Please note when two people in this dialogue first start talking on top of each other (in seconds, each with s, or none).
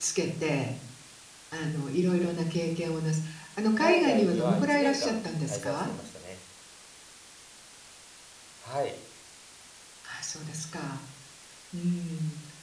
3.8 s